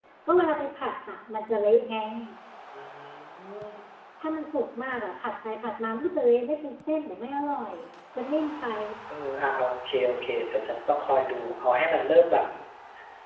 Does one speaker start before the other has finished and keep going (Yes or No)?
No